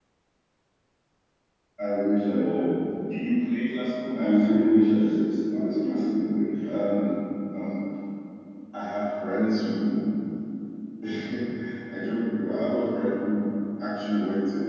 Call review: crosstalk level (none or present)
present